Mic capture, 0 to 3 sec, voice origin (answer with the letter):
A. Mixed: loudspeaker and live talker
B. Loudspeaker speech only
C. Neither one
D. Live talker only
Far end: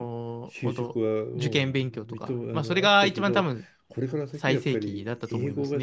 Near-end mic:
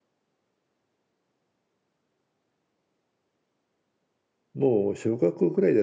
C